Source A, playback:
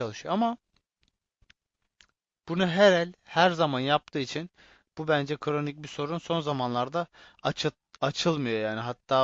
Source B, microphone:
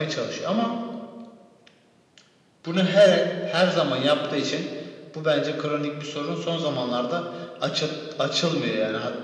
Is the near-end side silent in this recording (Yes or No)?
Yes